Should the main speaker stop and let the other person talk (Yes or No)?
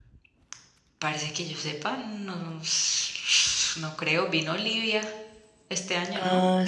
Yes